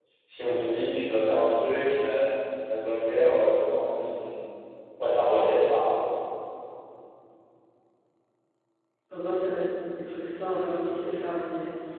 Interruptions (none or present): none